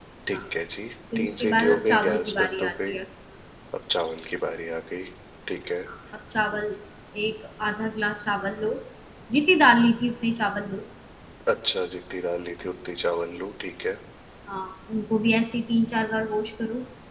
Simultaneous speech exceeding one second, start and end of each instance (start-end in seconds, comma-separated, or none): 1.2-2.9